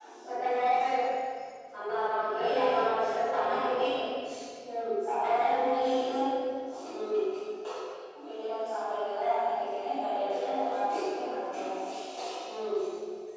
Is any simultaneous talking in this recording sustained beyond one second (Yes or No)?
Yes